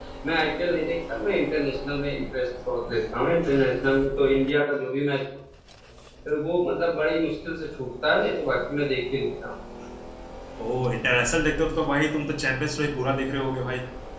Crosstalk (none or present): none